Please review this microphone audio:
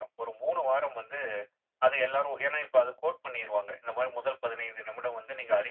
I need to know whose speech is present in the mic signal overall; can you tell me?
echo only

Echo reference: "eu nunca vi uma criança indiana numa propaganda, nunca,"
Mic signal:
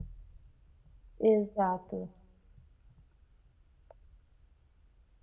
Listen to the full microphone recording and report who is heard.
user only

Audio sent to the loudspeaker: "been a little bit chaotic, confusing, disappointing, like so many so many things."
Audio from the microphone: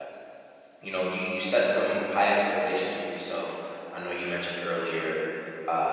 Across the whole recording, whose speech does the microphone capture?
user only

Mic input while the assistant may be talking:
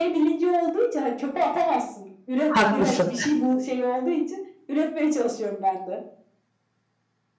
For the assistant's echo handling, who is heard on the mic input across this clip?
both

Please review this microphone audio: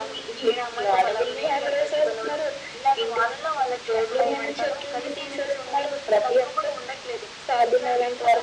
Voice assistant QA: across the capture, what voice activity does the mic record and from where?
echo only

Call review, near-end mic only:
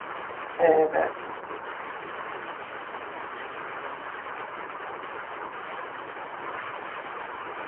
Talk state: user only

